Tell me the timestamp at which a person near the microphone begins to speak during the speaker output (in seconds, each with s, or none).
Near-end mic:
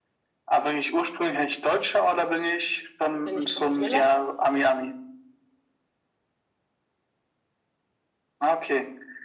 3.2 s